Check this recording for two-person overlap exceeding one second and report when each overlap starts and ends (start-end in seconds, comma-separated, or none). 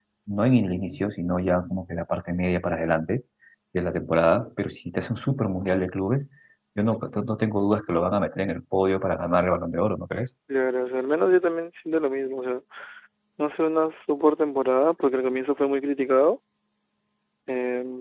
none